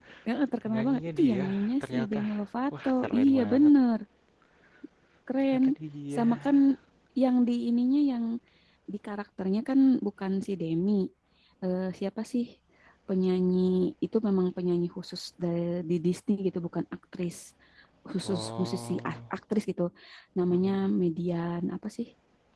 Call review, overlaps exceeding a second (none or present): present